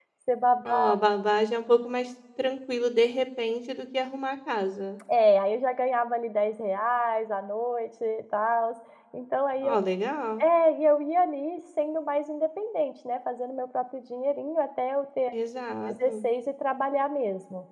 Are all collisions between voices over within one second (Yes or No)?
Yes